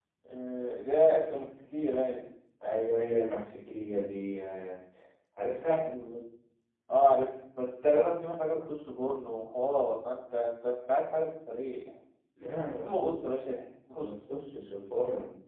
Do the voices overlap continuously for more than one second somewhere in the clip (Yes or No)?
No